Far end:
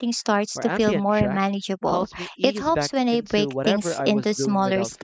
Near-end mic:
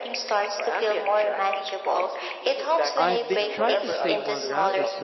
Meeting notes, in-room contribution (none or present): present